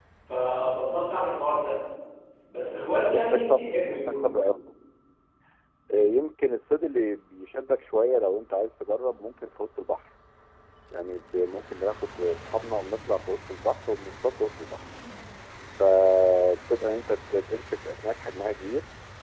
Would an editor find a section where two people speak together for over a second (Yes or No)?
Yes